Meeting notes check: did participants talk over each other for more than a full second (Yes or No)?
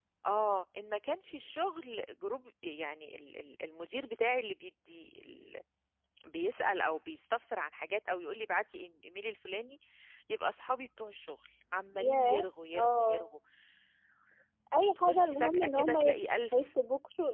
Yes